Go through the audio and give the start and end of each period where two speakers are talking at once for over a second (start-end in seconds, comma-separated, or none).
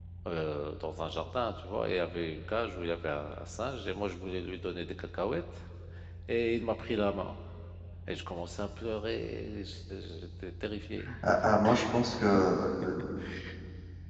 none